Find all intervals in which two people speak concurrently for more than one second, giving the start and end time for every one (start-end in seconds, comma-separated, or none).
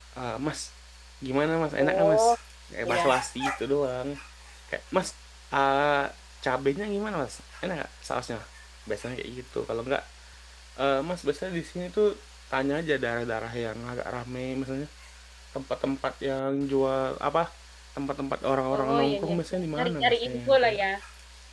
18.7-20.8